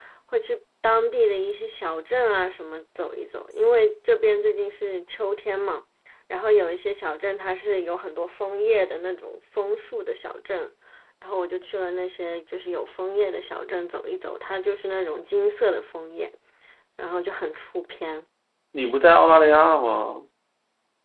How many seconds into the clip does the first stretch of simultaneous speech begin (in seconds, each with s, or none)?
none